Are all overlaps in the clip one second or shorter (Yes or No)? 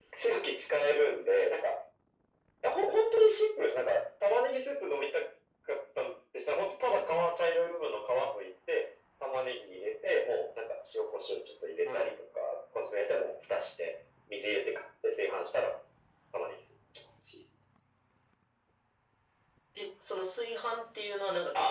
Yes